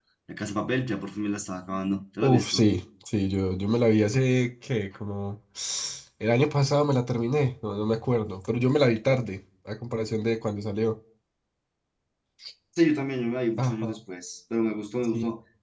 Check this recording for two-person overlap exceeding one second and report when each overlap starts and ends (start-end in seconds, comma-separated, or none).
none